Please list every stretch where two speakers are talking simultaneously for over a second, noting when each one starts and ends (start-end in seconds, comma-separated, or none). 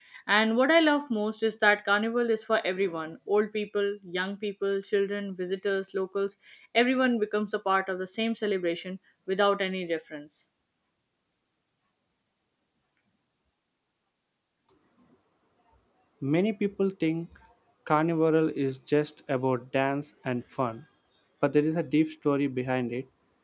none